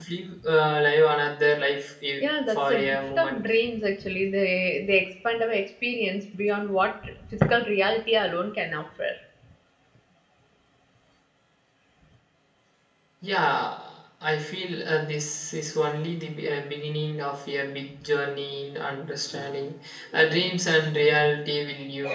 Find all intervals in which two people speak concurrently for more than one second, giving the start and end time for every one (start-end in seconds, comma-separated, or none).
2.2-3.5